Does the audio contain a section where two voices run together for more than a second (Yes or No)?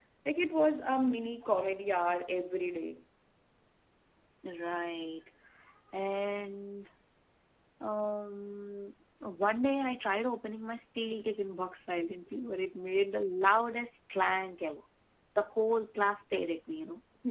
No